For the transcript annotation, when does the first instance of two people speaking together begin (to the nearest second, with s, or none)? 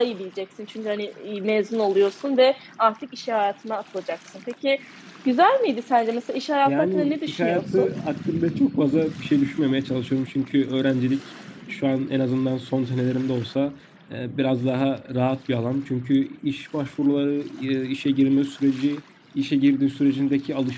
7 s